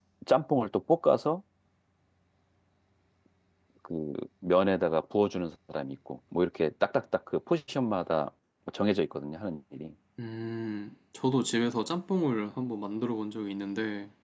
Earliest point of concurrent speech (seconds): none

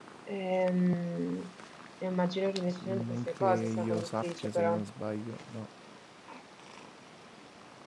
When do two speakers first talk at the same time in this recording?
2.8 s

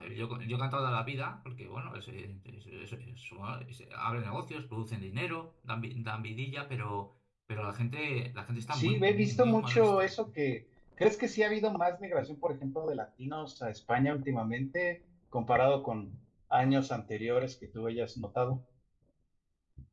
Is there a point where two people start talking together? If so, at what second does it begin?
8.7 s

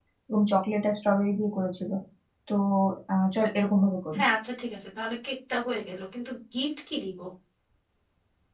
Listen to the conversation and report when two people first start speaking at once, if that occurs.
none

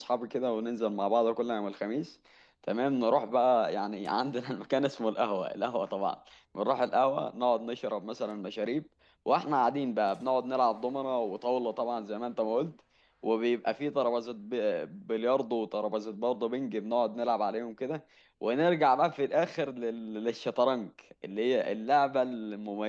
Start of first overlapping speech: none

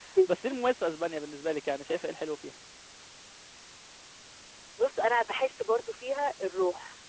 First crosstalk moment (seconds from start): none

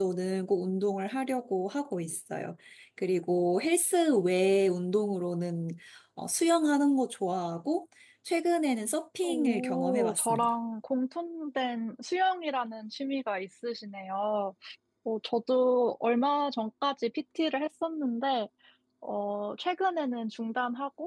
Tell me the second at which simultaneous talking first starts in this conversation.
9.2 s

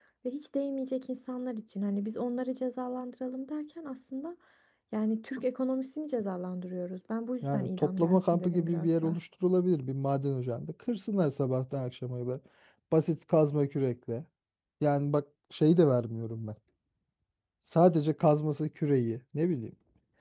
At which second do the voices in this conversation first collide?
7.4 s

